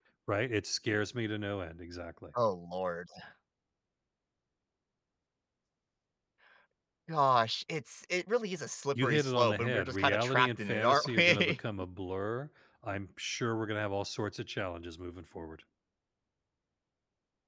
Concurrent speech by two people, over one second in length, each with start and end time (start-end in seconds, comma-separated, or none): 9.0-11.6